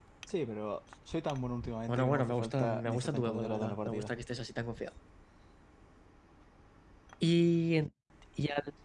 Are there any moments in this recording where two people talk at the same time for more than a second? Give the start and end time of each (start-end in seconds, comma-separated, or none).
1.9-4.1